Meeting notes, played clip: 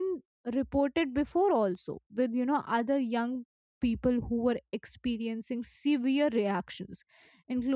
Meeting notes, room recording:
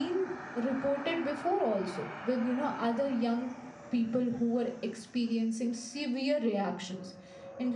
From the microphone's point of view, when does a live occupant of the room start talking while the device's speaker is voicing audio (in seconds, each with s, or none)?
none